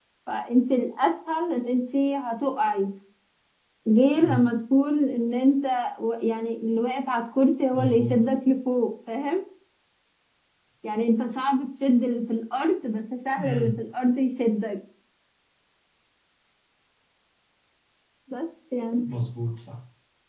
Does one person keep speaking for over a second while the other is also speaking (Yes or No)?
No